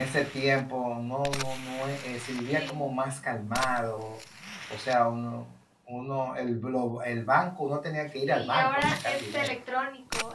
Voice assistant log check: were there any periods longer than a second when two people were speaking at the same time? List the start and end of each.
8.2-9.5

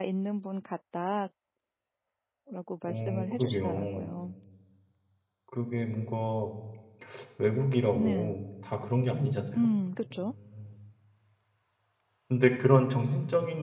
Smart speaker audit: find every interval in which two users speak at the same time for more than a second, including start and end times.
2.9-4.1

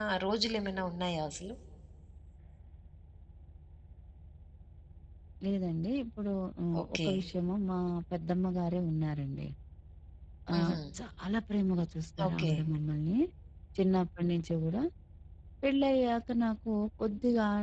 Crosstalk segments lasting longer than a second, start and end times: none

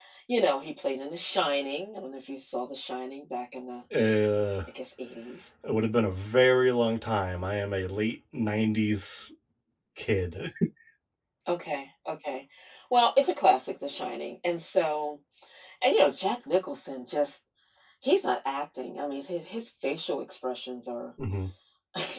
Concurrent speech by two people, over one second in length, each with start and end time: none

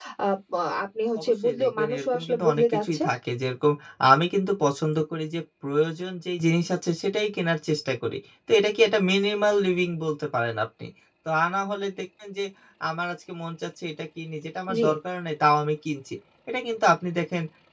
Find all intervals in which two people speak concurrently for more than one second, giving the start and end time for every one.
1.2-3.0

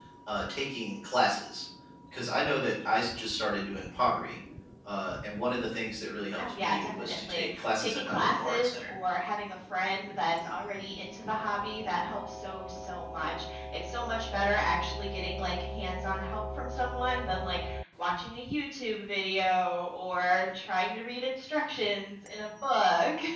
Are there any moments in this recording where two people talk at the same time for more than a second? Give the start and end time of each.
6.4-8.9

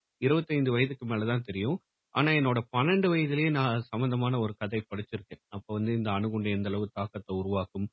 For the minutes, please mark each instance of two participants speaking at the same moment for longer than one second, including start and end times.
none

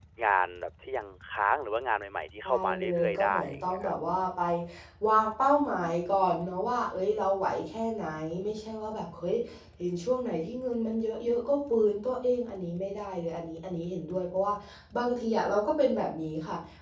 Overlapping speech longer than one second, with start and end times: 2.4-3.9

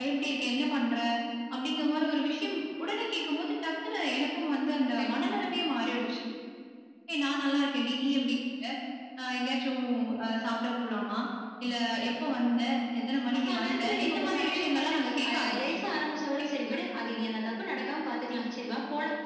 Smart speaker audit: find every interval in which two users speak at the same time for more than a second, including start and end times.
13.5-15.6

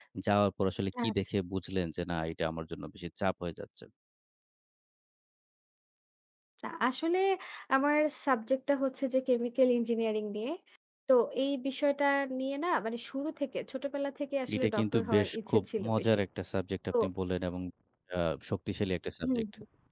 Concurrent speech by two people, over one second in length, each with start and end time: 14.5-16.2

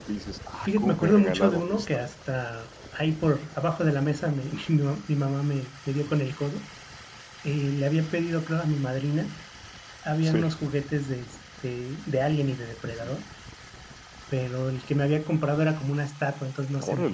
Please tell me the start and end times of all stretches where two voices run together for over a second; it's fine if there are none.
0.6-1.9

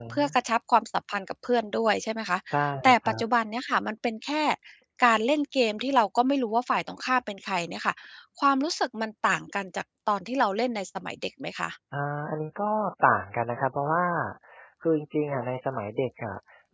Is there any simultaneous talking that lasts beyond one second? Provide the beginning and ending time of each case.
none

